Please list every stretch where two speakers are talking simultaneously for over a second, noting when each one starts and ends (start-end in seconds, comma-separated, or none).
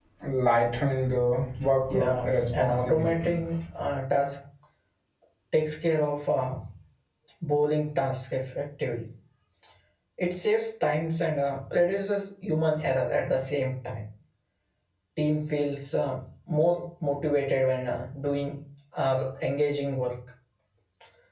1.9-3.4